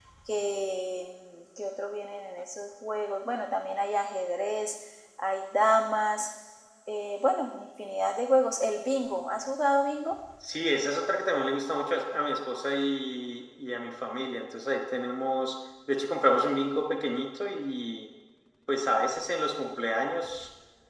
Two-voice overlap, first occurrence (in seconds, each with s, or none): none